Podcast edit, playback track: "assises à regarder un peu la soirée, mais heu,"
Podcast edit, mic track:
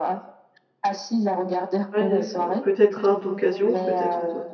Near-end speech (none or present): present